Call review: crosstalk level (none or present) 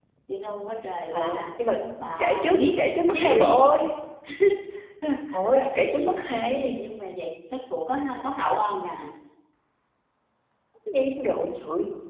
present